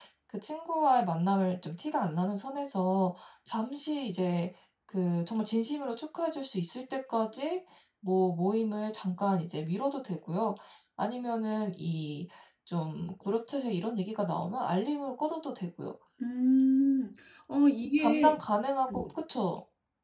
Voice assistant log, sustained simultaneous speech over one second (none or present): none